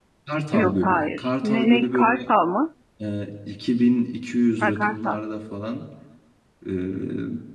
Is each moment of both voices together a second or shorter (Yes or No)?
No